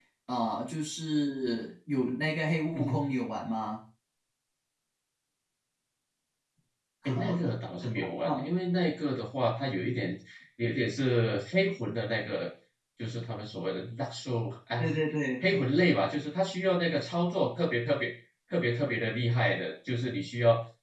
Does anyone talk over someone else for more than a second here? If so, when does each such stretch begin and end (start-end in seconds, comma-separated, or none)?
none